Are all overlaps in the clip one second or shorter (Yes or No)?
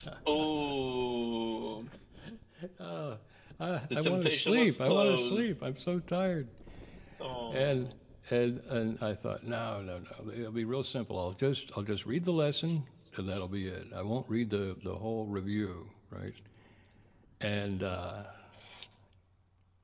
No